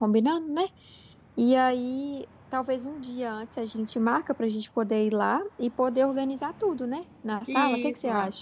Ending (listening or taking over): taking over